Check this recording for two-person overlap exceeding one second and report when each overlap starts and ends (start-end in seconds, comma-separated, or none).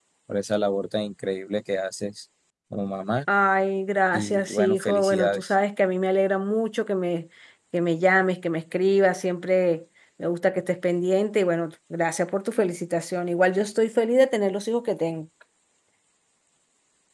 4.1-5.4